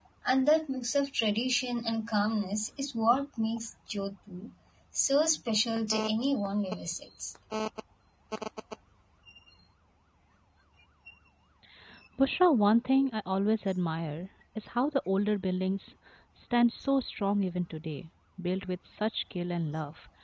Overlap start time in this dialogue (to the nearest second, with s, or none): none